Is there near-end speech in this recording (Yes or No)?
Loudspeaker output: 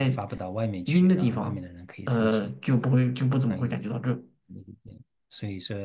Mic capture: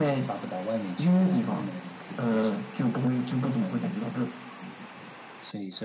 No